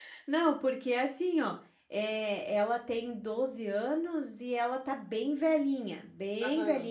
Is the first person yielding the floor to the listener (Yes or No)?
No